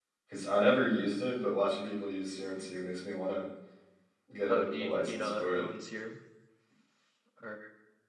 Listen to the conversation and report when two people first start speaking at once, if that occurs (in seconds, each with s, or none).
4.5 s